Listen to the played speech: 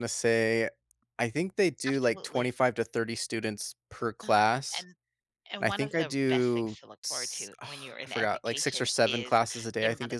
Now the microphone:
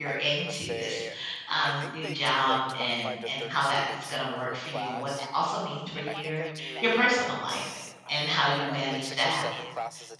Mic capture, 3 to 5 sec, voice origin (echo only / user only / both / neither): both